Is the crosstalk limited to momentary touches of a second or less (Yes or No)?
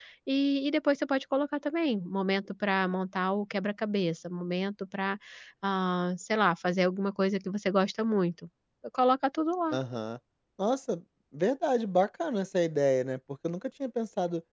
Yes